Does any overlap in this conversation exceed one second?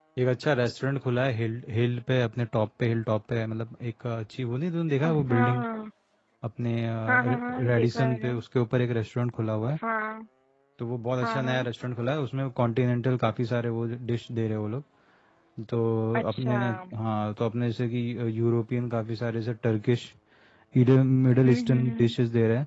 Yes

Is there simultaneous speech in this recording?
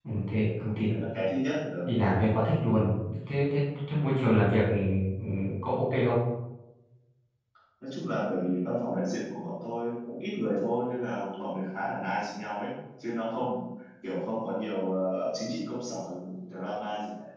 No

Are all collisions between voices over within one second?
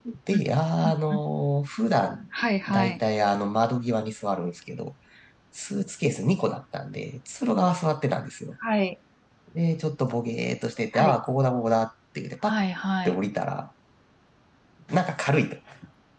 Yes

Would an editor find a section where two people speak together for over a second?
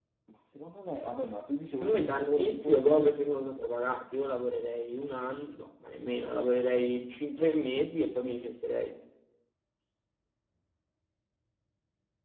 Yes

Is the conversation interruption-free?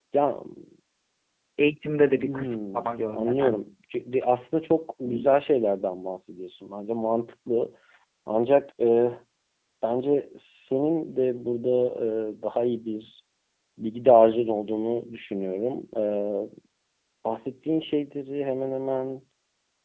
No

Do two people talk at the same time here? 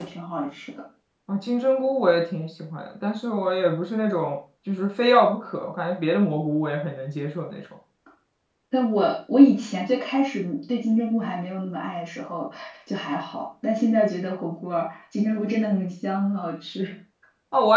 No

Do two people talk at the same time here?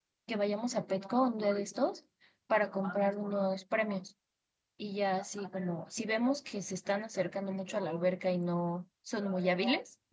No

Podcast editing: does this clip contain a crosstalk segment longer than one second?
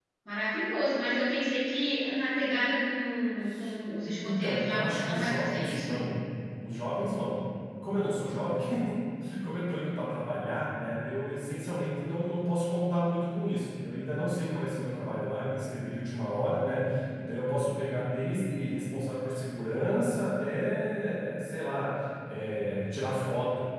Yes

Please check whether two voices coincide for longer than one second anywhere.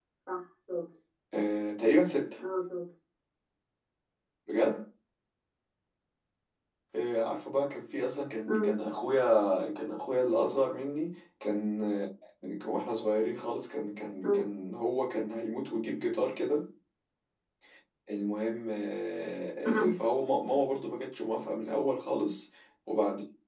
No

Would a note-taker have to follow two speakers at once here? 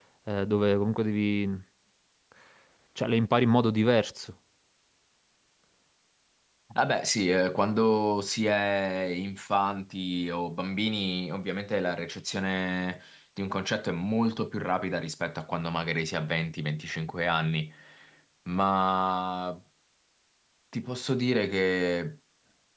No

